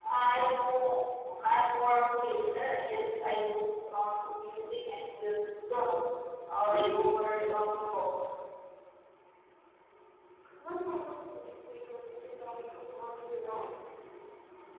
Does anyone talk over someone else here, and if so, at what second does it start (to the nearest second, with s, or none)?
7 s